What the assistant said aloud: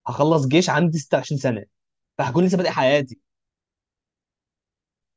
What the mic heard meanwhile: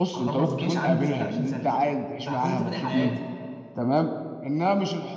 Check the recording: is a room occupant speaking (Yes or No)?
Yes